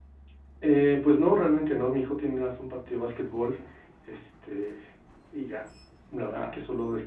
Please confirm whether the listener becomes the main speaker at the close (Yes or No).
No